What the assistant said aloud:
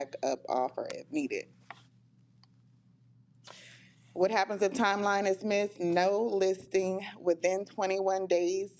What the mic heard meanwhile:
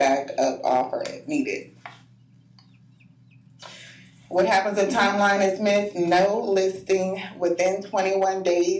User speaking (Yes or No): No